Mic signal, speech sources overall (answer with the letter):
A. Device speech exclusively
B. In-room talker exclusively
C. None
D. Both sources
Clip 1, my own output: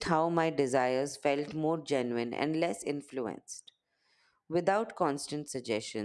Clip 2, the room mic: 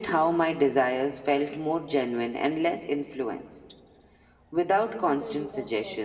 D